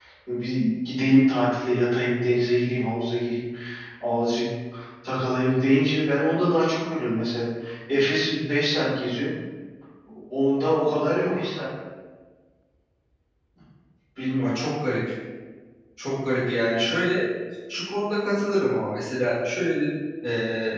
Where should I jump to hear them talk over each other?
none

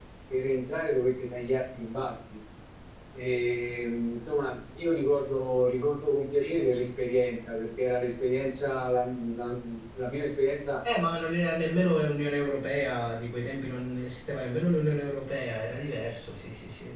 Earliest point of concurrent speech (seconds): none

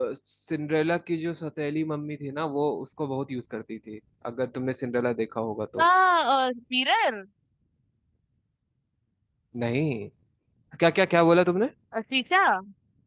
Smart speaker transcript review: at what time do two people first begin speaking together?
none

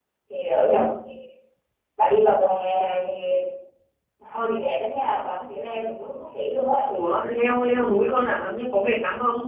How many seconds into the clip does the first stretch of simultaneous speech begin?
none

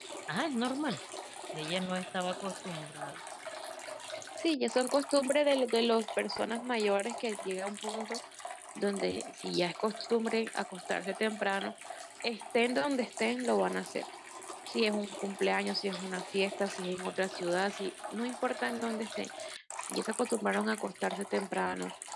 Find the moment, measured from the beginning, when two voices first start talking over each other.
none

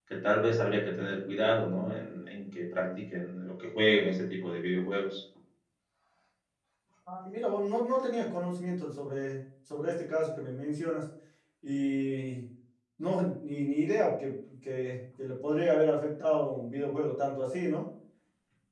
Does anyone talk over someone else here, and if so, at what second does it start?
none

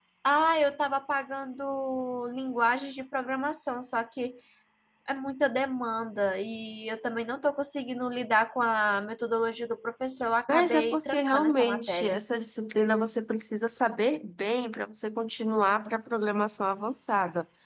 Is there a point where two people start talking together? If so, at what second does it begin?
10 s

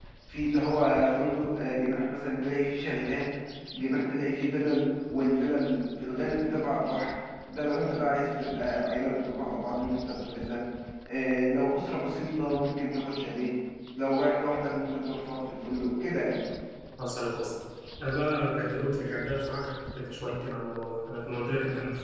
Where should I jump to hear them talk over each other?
none

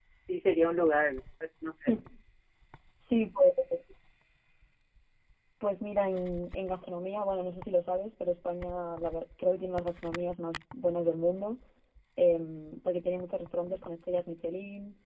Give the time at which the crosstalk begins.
none

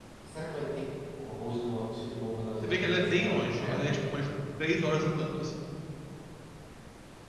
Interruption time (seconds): 3 s

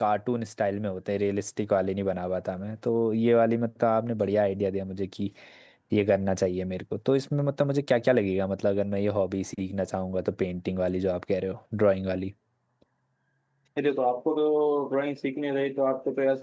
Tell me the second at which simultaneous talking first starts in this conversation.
none

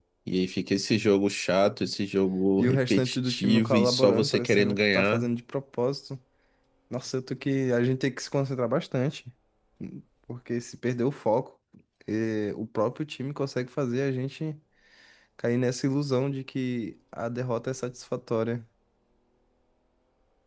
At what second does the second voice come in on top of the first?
3 s

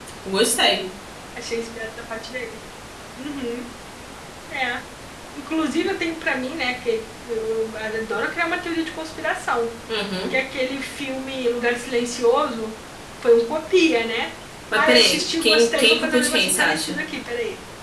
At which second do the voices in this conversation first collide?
15 s

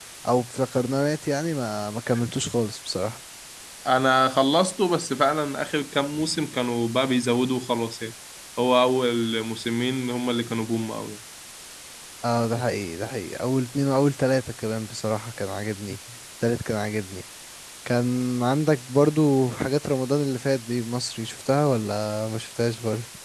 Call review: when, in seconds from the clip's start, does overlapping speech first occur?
none

